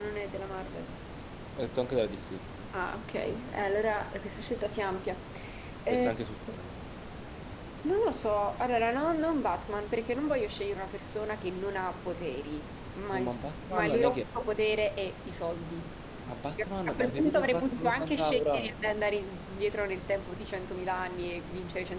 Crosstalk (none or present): present